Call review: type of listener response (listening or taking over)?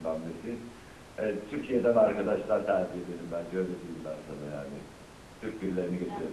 taking over